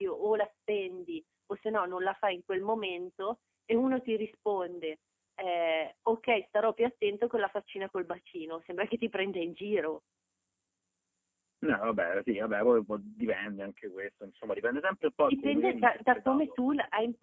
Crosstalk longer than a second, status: present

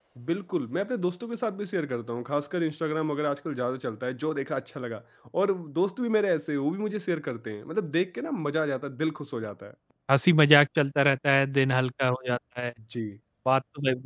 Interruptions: none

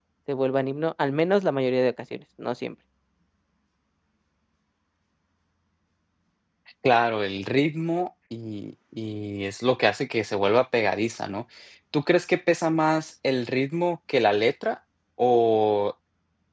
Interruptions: none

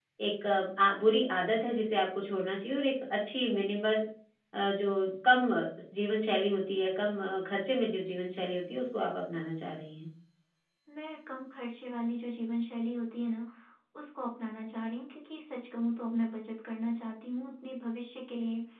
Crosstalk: none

